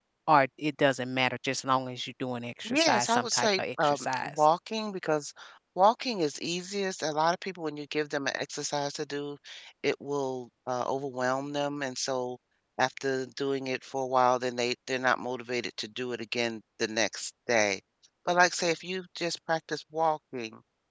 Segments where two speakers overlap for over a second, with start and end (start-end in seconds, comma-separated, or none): 2.7-4.5